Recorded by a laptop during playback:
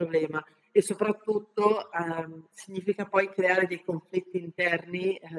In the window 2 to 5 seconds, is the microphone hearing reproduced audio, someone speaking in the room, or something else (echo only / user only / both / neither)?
echo only